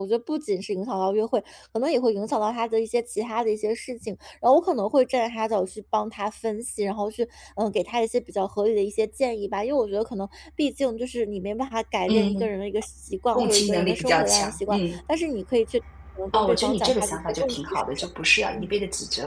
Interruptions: present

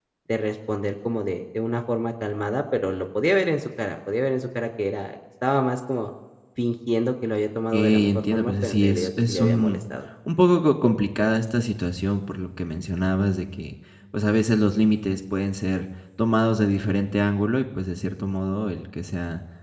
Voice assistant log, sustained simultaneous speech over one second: present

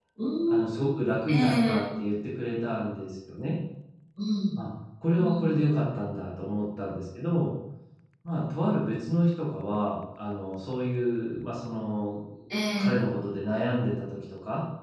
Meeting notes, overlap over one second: none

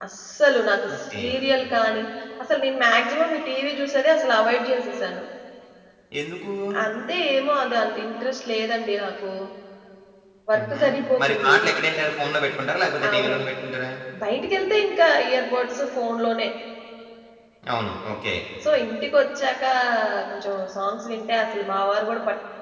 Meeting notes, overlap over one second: none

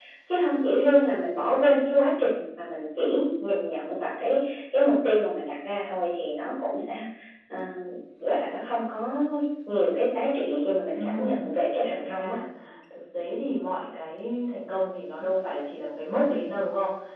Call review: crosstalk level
present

